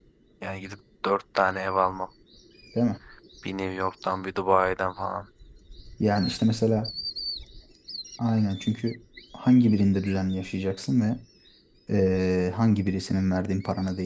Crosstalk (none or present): none